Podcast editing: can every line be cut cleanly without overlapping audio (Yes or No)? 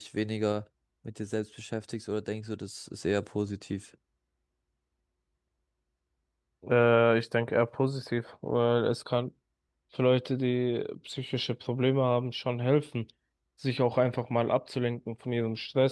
Yes